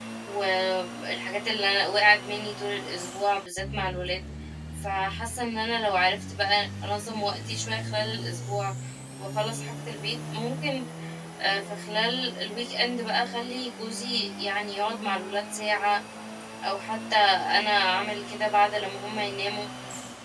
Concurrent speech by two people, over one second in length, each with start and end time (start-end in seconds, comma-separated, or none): none